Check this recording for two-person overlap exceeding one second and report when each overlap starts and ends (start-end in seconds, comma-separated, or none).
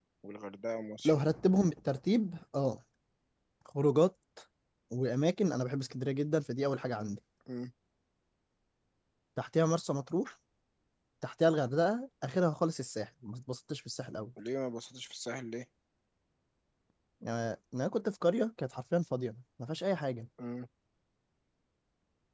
none